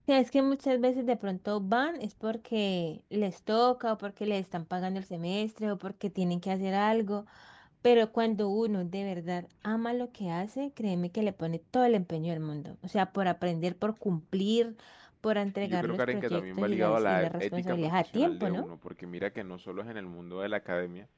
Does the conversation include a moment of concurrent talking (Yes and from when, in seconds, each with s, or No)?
Yes, from 15.6 s